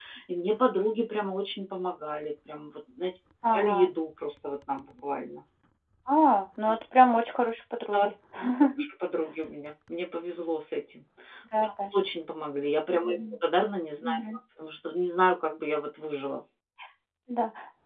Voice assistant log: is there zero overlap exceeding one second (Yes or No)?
Yes